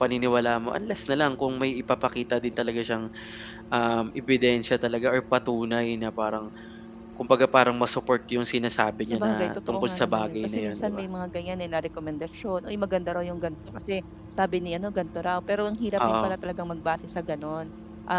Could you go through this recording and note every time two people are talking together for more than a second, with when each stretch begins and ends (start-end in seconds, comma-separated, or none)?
9.0-11.0